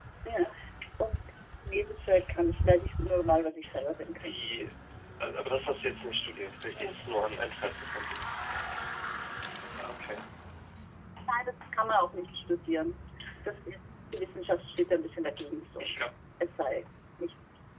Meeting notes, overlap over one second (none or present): none